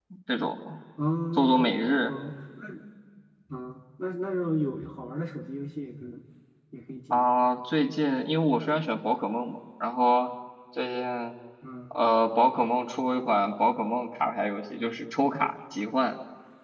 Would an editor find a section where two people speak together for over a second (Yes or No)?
No